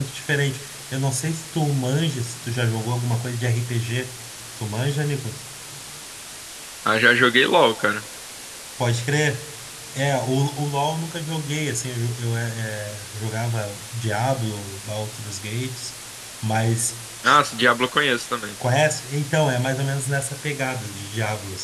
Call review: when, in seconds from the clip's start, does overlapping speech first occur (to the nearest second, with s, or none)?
none